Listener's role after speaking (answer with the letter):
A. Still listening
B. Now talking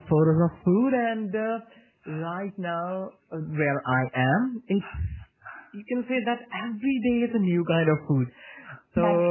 A